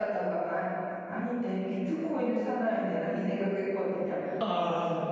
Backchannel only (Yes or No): Yes